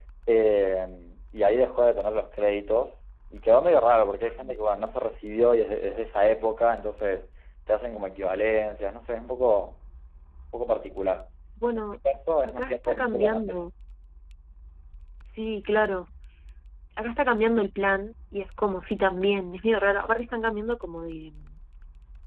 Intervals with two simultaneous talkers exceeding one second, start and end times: 12.4-13.6

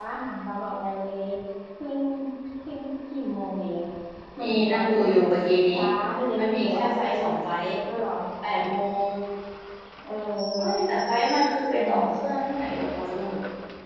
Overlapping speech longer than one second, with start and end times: 4.4-5.7

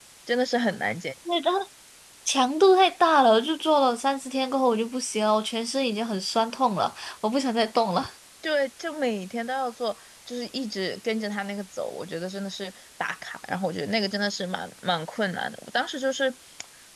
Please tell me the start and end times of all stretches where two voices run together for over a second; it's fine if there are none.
none

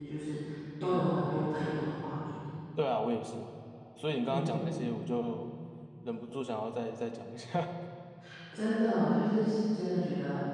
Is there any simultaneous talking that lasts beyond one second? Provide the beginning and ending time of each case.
none

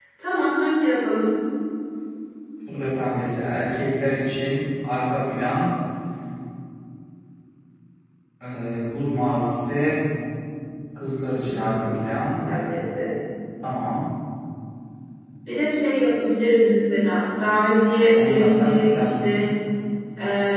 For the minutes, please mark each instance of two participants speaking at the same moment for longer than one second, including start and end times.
18.1-19.5

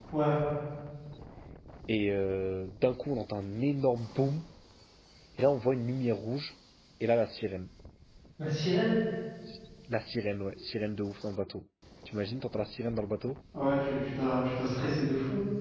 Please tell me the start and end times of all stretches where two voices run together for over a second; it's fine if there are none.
none

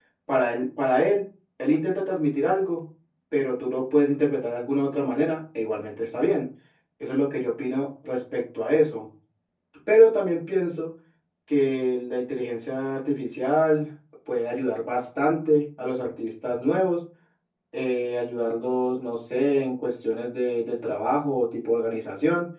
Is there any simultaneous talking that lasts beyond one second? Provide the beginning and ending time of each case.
none

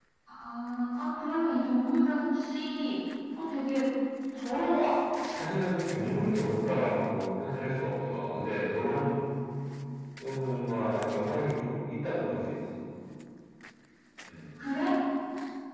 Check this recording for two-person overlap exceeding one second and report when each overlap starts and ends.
none

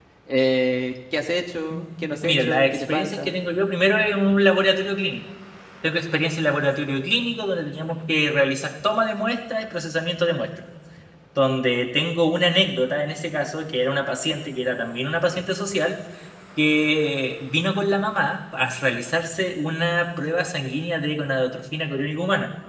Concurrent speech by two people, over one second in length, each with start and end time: 1.7-3.4

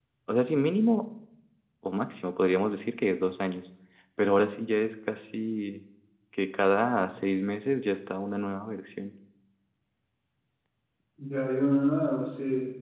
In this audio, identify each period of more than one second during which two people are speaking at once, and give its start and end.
none

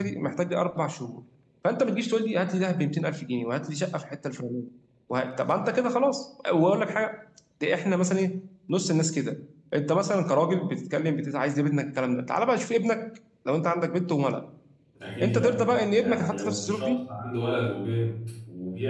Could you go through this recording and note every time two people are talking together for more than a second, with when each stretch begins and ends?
15.2-16.9

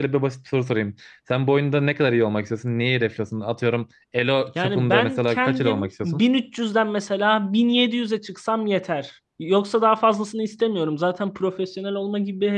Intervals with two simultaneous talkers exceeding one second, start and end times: 4.6-6.2

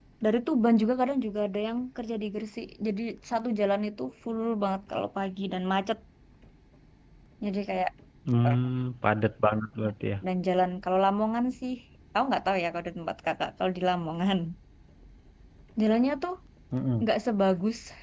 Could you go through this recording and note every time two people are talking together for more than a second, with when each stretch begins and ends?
none

